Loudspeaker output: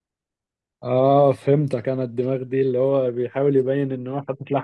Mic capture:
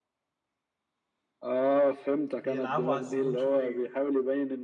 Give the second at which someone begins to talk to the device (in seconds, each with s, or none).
2.4 s